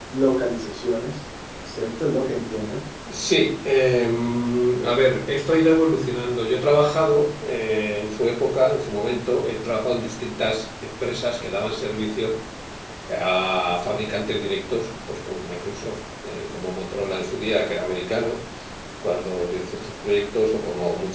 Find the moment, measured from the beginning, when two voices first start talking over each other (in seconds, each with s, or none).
none